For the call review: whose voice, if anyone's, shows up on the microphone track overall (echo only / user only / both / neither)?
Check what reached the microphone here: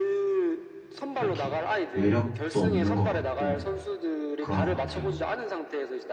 both